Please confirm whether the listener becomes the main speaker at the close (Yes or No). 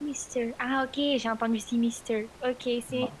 No